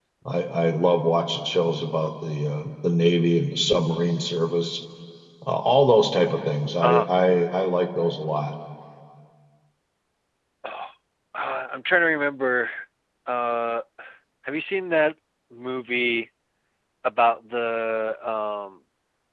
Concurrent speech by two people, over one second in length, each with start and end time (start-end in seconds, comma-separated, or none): none